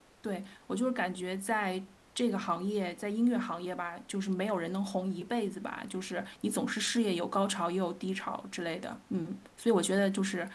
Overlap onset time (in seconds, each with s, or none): none